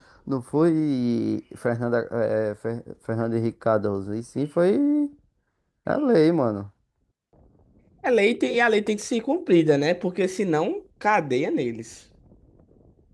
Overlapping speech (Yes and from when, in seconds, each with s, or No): No